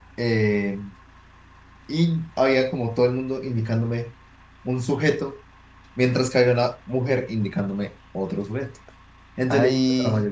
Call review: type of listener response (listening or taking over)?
listening